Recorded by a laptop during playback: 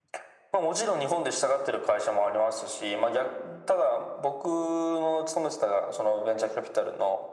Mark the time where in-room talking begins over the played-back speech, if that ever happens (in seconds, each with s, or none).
none